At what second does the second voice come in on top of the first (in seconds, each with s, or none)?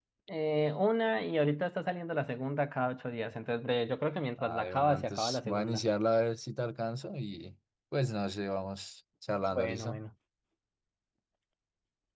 4.4 s